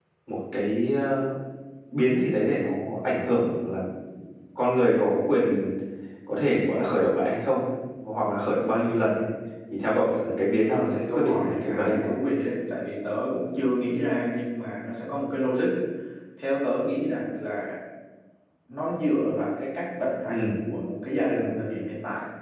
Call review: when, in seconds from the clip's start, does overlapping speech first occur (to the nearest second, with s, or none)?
11 s